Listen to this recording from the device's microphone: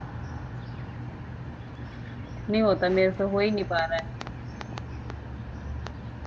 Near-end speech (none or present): present